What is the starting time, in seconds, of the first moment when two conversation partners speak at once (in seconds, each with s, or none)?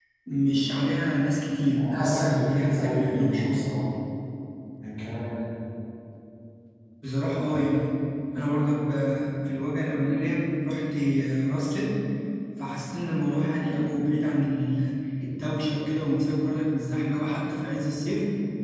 1.8 s